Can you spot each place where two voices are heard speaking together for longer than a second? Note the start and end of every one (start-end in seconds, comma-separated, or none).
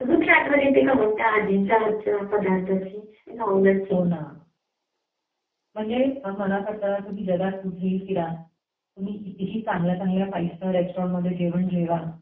none